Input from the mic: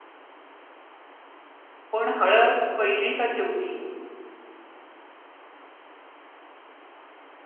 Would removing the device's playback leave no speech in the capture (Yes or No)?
No